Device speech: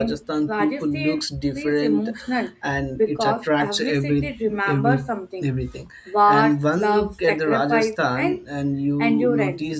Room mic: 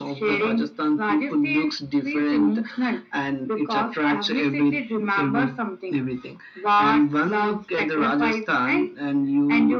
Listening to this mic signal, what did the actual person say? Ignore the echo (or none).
none